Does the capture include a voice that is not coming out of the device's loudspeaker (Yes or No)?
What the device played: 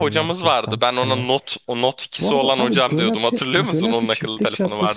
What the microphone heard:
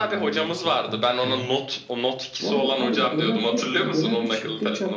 No